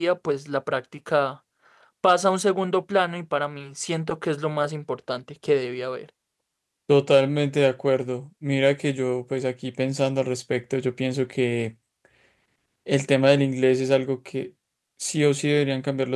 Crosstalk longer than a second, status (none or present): none